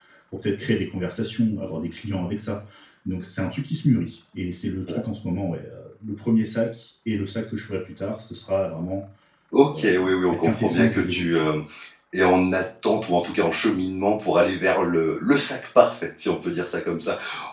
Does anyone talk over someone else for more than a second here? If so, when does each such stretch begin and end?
9.6-11.5

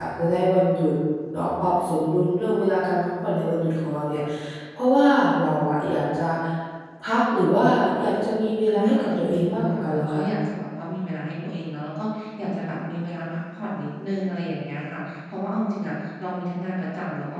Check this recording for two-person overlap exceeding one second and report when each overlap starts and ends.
8.7-10.2

